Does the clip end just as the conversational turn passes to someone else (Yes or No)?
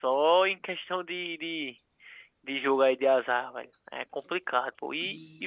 No